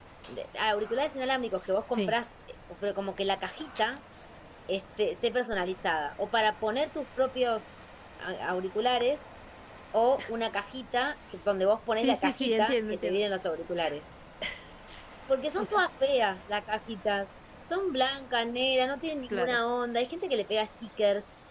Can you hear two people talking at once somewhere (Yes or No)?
Yes